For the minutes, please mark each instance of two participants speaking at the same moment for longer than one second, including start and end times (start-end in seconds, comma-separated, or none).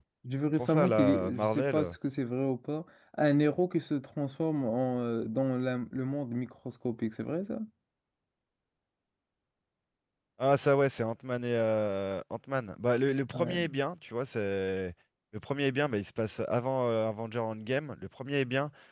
0.6-1.9